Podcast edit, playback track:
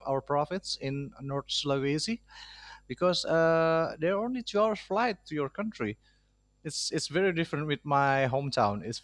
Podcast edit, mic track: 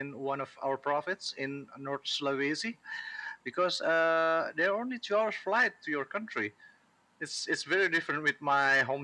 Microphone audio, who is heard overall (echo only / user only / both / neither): echo only